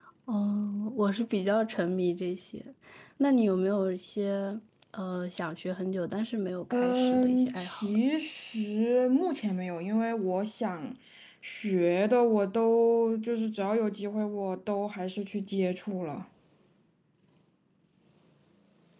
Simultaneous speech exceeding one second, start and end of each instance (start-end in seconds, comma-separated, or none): 6.7-8.0